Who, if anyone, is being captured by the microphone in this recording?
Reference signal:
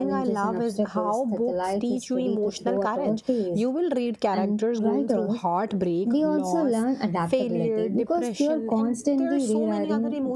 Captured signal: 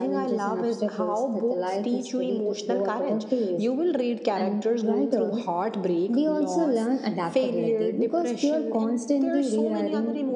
echo only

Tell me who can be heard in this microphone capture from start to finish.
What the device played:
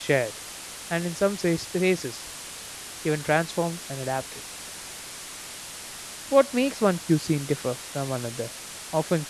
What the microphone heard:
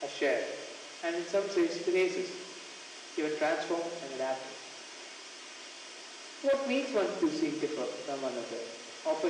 echo only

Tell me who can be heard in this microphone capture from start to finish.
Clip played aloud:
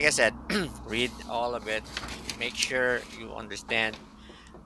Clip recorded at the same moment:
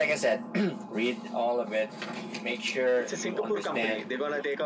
both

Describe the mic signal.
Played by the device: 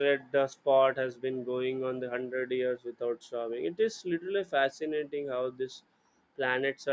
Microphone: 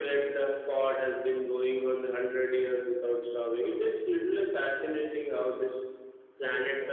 echo only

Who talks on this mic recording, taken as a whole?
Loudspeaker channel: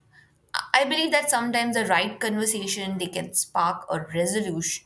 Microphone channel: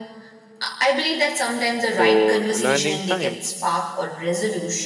both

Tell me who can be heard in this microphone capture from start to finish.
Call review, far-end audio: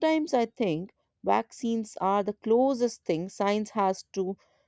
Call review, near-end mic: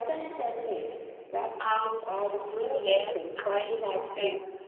both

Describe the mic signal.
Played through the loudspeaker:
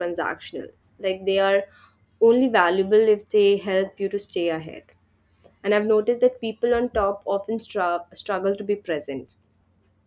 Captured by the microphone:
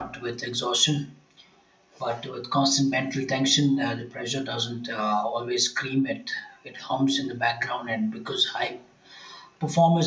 user only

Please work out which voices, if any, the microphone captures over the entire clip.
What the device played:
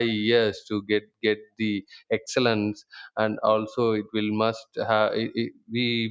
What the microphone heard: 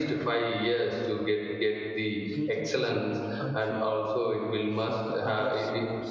both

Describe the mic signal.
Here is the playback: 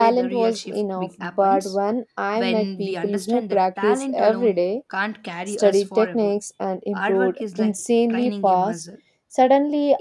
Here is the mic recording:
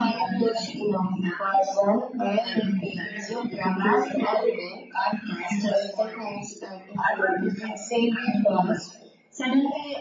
echo only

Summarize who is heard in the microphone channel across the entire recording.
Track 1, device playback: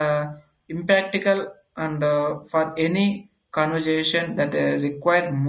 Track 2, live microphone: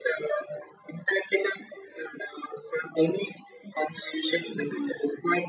echo only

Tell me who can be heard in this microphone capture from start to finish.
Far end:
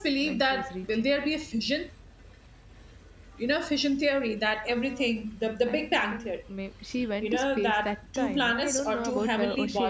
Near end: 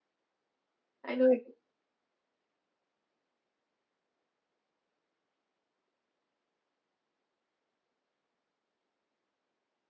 user only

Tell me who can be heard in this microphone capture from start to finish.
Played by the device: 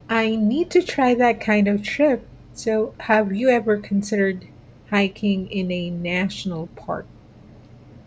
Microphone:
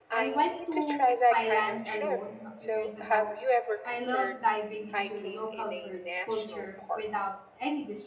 both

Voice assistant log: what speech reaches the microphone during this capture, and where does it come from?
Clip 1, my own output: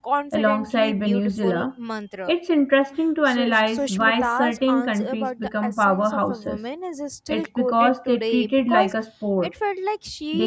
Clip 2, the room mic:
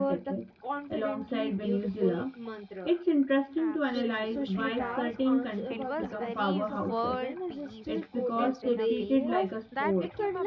both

